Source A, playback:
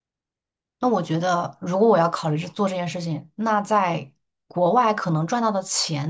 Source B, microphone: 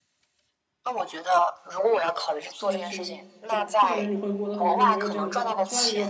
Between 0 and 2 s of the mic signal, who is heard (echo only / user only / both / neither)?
echo only